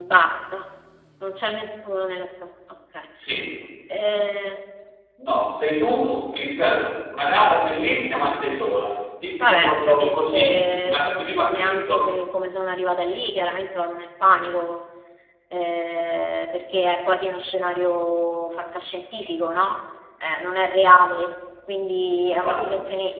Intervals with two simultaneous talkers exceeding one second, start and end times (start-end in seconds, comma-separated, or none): 9.4-12.1